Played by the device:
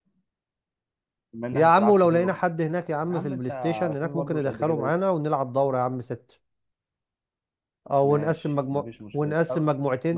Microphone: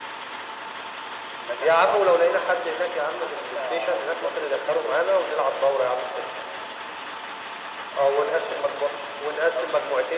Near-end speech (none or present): none